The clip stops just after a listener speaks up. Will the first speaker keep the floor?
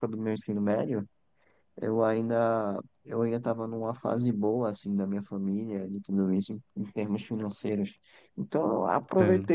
Yes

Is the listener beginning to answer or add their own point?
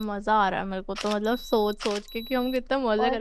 No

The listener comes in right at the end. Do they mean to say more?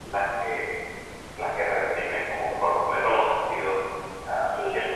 No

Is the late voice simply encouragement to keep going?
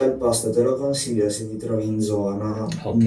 No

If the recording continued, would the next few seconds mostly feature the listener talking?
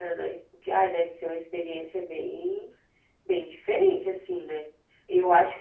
No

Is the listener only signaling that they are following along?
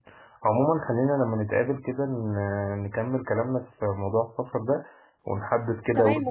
No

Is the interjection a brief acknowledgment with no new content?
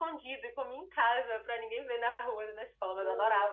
No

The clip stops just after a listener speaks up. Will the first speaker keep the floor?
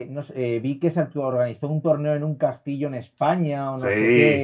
Yes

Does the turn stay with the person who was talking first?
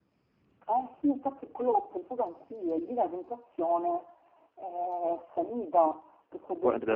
Yes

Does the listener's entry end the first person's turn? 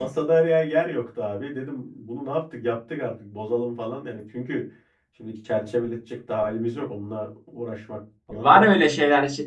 Yes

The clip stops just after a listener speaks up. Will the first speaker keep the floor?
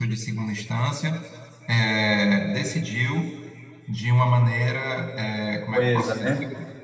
Yes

